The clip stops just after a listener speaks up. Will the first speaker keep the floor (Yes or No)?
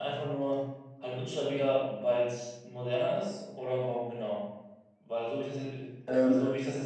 Yes